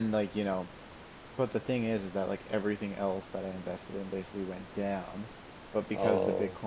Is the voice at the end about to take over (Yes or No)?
No